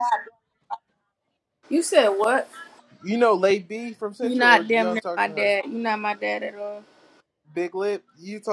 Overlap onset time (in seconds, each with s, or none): 4.2 s